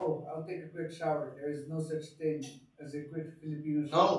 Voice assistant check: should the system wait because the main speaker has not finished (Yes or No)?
No